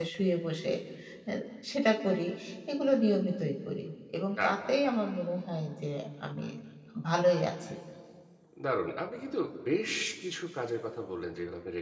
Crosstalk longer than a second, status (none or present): none